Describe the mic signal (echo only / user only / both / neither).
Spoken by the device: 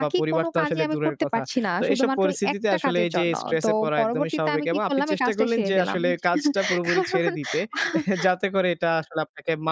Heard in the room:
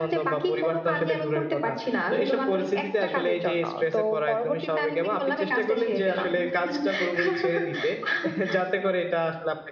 echo only